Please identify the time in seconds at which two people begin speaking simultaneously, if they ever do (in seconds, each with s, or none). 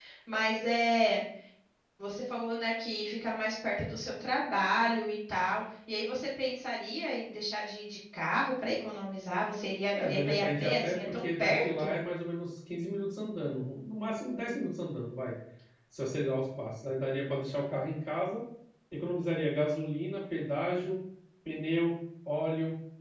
9.9 s